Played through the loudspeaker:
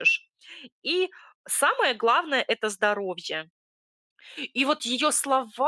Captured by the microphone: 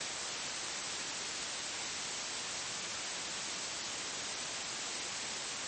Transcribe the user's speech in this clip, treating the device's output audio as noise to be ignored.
none

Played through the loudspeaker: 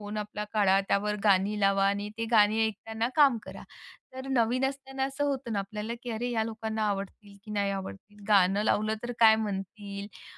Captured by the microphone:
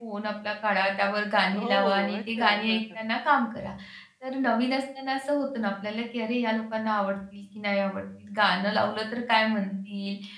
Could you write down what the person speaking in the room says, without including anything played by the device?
हो. अच्छा. हं, हं.

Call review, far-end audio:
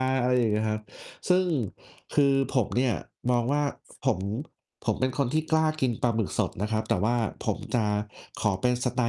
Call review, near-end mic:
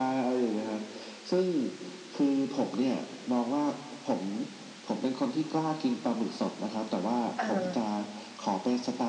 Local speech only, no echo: เออ

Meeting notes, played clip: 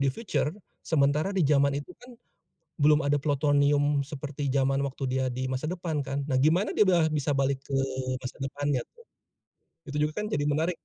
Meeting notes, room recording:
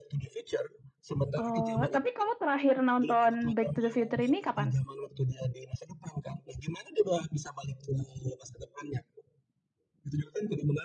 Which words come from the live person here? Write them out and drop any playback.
Oh, tapi kamu terakhir nonton Back to the Future ini kapan?

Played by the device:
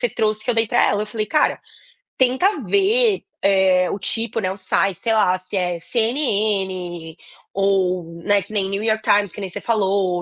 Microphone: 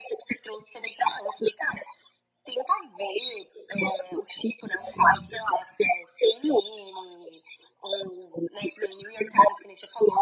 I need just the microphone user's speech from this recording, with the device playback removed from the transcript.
Sim.

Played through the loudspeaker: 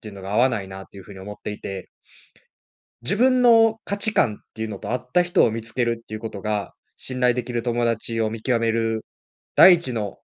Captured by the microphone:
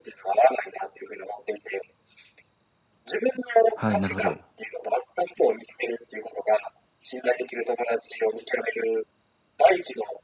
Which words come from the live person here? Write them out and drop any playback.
はい、なるほど。

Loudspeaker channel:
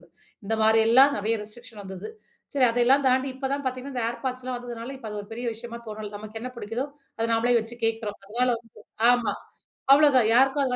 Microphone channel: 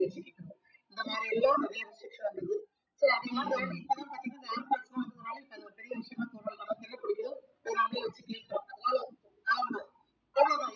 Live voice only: ம் ம்.

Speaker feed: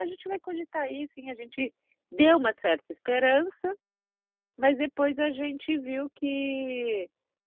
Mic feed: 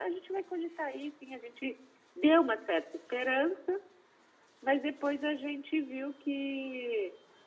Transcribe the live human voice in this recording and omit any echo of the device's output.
none

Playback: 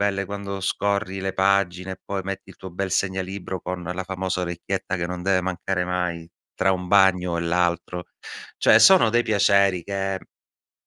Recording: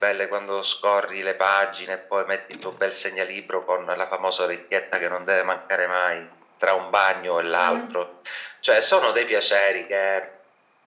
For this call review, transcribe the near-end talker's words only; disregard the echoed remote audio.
Ma non s

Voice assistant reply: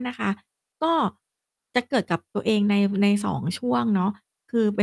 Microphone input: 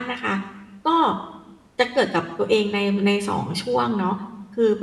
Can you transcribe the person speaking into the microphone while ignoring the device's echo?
none

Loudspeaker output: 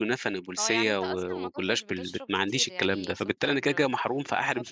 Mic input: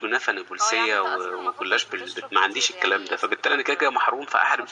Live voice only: none

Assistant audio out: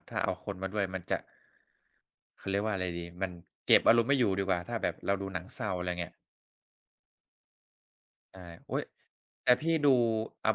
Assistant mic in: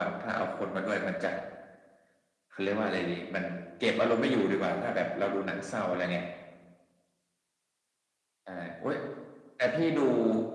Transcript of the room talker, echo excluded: none

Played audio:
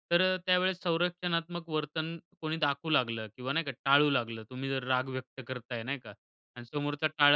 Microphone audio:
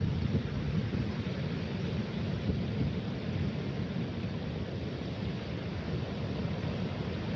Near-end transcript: none

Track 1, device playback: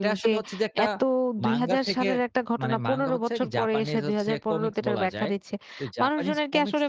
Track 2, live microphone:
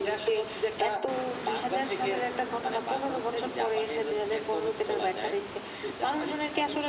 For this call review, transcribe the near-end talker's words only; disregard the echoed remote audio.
none

